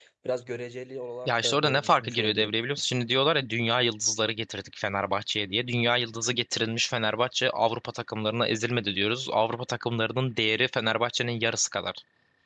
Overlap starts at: 1.2 s

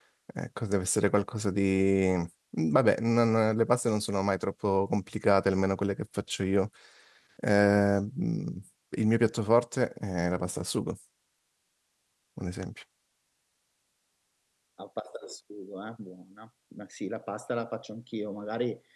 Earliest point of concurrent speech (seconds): none

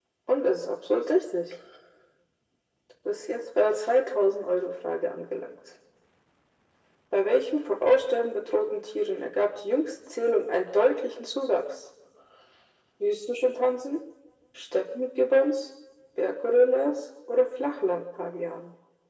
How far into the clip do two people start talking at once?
none

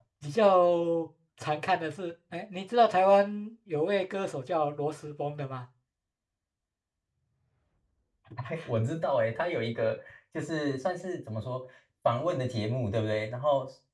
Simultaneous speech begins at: none

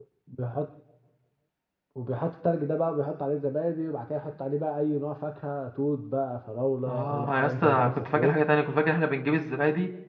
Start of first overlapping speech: 6.9 s

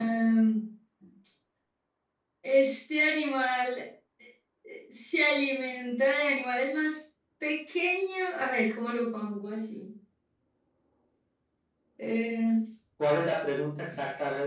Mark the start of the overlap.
none

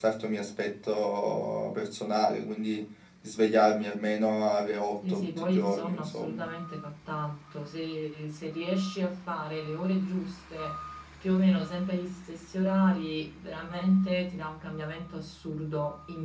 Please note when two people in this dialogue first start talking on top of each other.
5.0 s

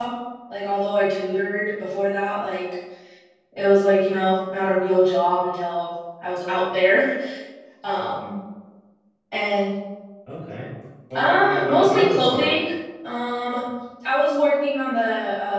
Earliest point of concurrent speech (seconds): 11.2 s

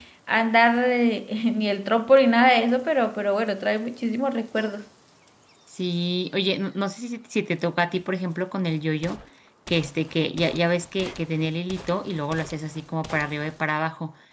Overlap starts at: none

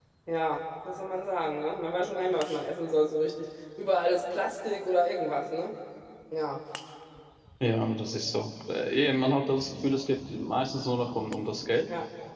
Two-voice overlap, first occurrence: none

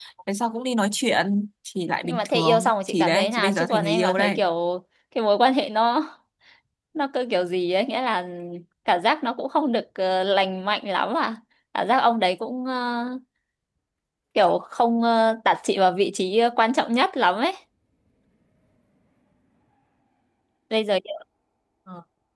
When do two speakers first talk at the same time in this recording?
2.0 s

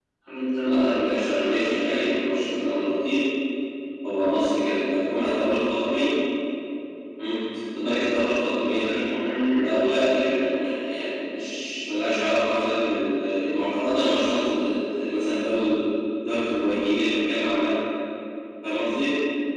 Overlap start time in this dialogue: 0.6 s

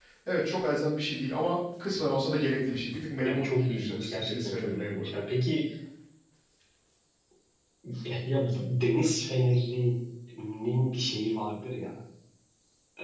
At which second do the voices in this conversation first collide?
3.2 s

